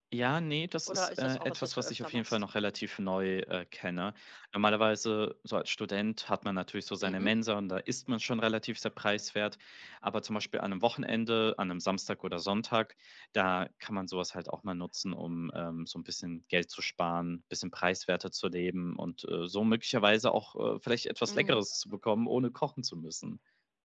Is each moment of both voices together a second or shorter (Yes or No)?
No